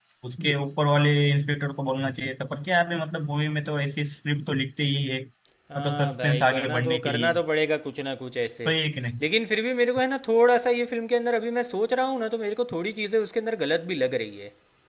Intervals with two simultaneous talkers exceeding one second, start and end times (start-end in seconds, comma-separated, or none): 5.8-7.3